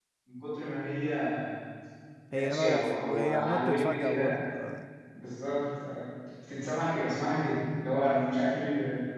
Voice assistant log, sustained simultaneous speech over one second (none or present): present